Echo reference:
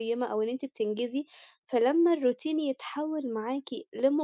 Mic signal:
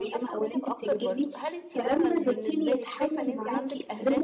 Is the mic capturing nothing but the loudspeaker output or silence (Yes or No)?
No